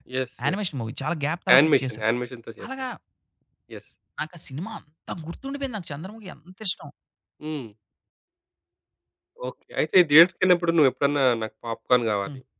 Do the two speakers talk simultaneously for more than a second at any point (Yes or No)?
No